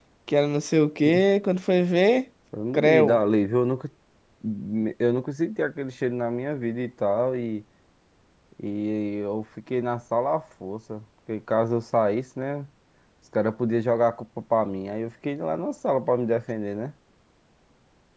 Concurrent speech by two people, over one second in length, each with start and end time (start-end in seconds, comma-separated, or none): none